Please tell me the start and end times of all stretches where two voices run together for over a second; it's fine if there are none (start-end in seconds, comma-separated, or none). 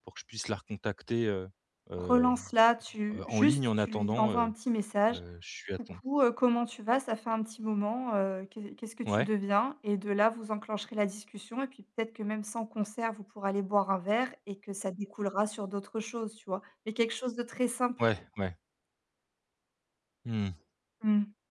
3.1-4.5